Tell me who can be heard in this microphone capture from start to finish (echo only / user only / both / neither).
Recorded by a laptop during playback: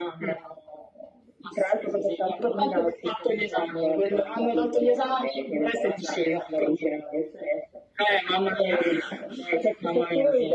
echo only